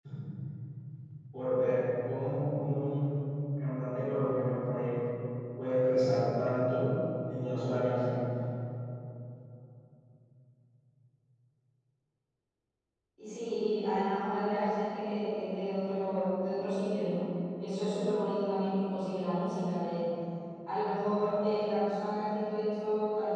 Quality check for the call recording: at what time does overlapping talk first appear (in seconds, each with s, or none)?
none